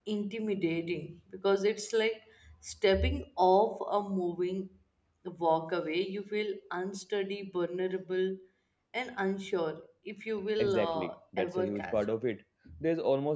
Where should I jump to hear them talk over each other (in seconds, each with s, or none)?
10.6 s